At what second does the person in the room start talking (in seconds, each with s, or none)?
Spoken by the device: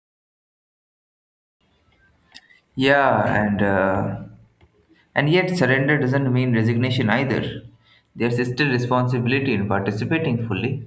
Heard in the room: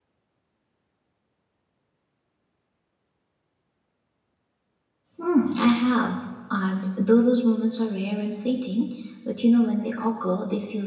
5.2 s